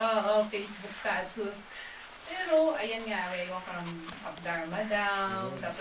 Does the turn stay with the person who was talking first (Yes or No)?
Yes